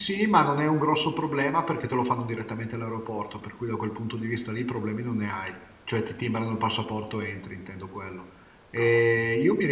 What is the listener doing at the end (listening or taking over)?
listening